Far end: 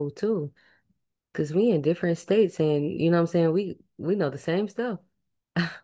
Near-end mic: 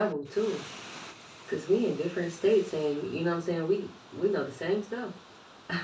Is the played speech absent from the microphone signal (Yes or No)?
No